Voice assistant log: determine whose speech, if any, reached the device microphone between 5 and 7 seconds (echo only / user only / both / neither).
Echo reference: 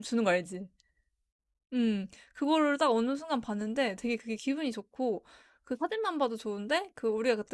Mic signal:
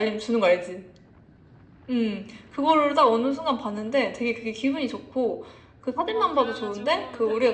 both